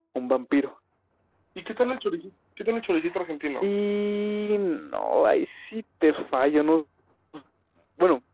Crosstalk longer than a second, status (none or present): none